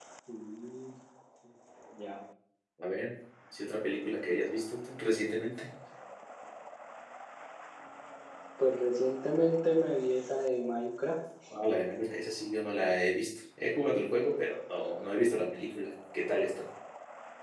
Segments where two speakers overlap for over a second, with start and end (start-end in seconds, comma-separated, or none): none